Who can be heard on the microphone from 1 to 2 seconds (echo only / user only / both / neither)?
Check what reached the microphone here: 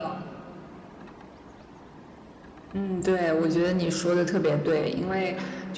neither